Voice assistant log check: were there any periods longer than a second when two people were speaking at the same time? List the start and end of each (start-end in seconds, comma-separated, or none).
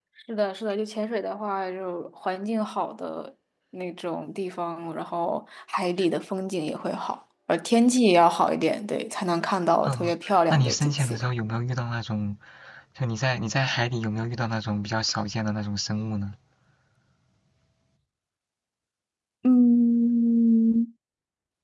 9.8-11.2